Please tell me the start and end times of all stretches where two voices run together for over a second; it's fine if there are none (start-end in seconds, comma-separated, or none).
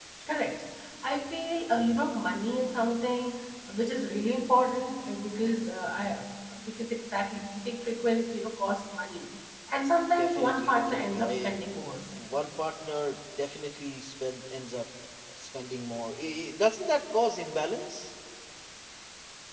10.2-11.5